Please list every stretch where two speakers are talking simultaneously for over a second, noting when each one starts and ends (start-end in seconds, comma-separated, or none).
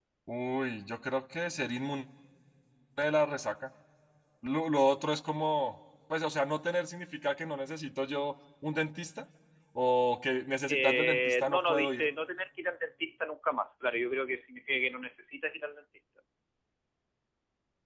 10.7-12.0